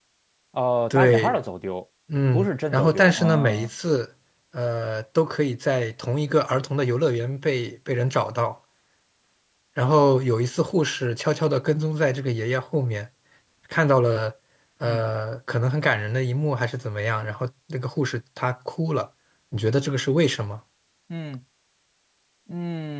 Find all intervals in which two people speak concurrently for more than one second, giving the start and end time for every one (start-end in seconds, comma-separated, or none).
2.3-3.7